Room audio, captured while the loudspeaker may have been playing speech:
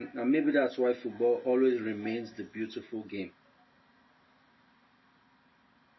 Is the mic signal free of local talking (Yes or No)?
No